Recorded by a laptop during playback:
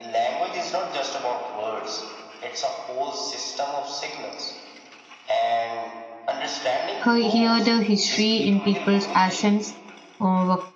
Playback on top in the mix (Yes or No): No